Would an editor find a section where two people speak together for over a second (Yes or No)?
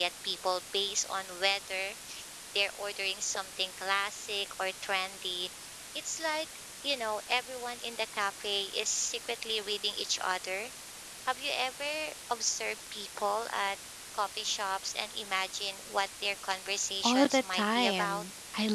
Yes